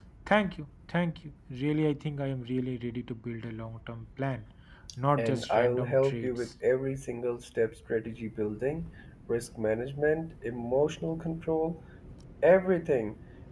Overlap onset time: 5.2 s

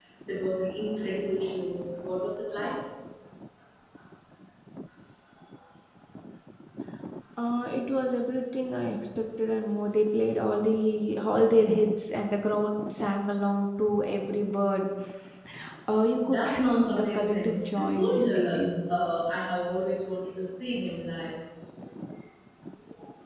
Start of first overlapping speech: 16.2 s

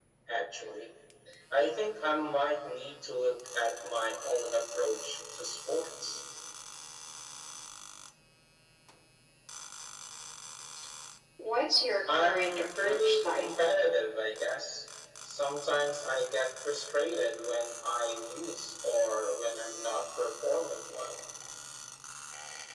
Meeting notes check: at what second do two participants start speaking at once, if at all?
12.1 s

